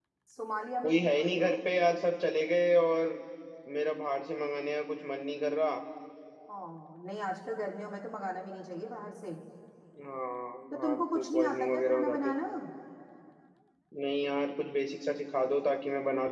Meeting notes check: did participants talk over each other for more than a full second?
Yes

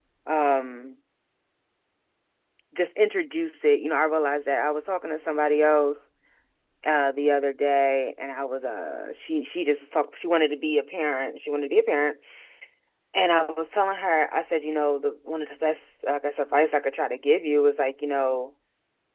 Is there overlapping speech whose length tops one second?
No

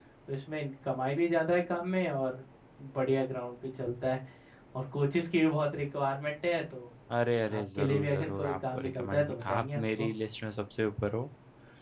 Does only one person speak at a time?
No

